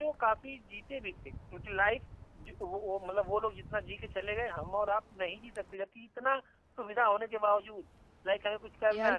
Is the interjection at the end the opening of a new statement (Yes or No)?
No